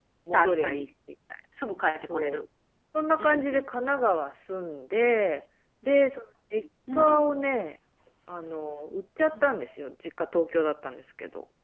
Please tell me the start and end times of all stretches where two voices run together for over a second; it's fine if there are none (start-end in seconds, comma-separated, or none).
none